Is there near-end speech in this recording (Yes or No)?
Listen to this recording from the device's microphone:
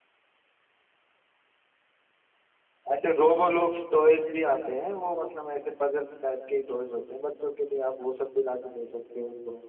Yes